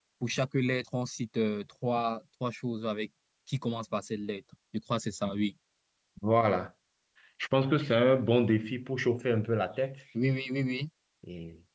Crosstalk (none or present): none